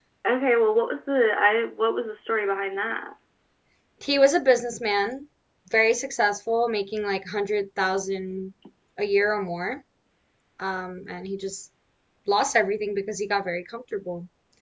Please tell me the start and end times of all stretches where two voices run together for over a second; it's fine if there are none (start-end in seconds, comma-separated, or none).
none